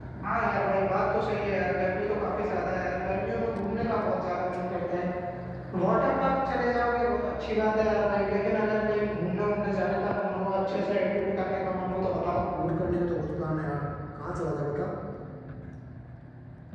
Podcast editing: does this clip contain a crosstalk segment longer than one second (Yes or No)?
No